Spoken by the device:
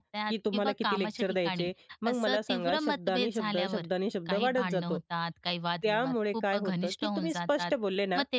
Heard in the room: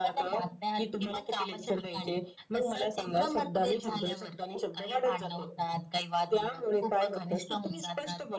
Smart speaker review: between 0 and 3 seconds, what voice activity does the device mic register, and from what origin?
echo only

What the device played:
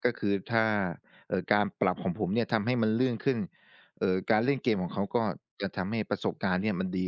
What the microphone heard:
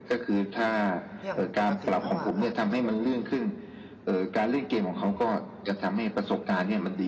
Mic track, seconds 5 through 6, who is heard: echo only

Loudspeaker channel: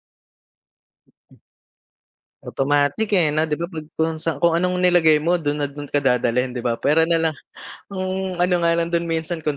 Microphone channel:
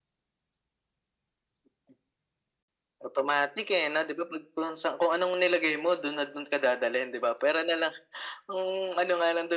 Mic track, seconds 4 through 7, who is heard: echo only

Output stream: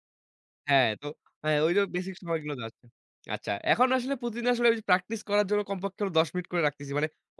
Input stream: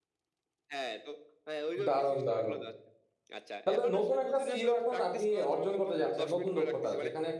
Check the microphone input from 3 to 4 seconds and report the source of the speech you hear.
both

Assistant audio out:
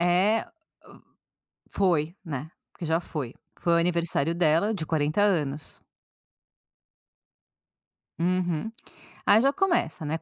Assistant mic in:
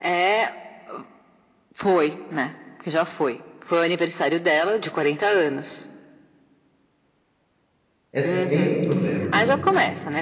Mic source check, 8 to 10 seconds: both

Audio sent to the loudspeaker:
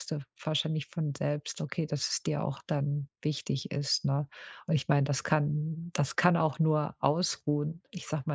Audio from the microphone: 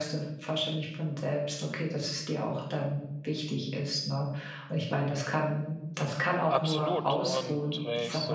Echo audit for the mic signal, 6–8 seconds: both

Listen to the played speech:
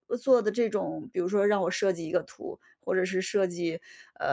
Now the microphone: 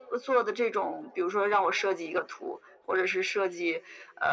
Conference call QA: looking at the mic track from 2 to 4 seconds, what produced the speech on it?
echo only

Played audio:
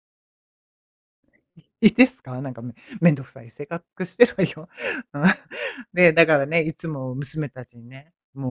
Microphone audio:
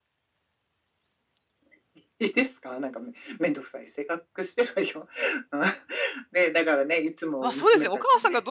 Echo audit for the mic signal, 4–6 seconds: echo only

